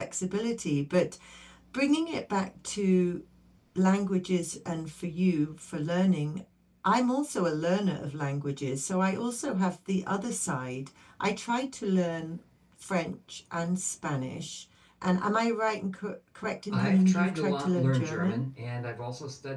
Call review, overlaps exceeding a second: present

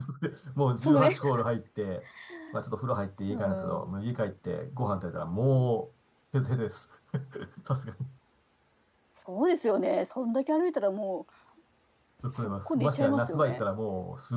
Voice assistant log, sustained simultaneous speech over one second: present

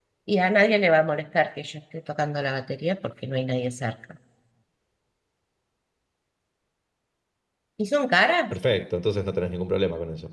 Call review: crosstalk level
none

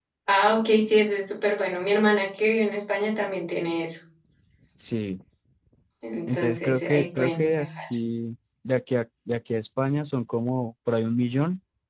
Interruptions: present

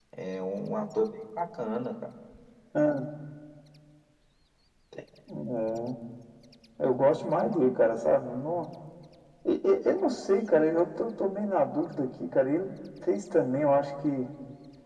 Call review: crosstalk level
none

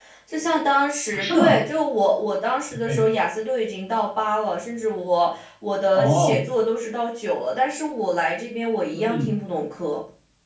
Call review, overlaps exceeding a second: none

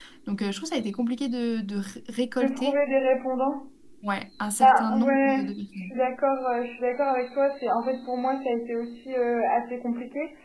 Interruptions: present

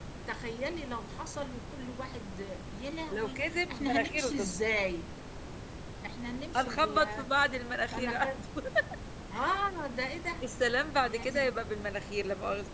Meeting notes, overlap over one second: present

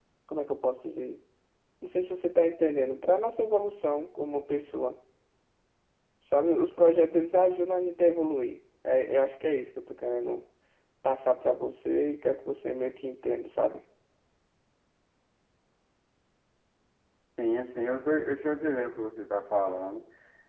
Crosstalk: none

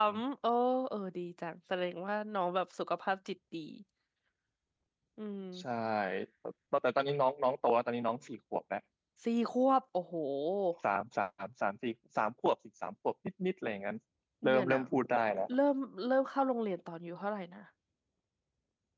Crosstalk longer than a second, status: none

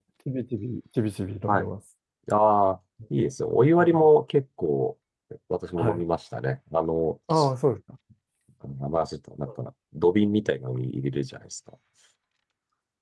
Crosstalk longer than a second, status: none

